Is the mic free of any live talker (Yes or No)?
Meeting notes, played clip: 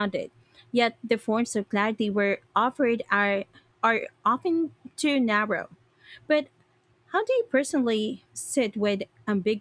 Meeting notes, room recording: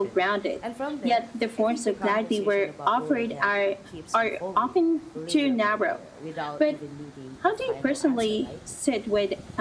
No